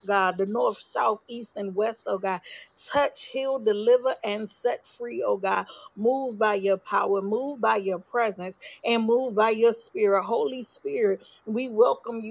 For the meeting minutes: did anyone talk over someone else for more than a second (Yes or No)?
No